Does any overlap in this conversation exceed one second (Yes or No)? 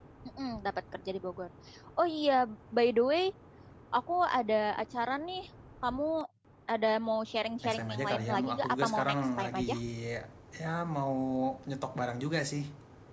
Yes